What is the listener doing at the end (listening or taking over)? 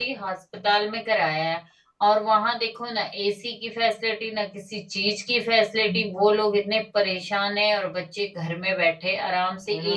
taking over